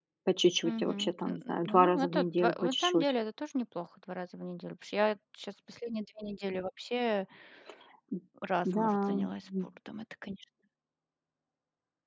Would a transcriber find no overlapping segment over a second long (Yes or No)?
No